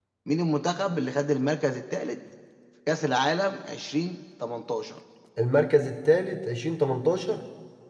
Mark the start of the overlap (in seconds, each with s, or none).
none